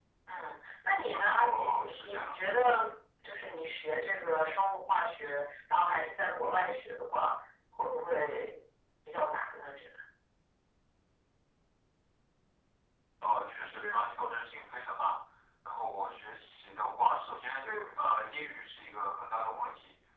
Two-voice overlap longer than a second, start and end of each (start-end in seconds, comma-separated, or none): 1.1-2.6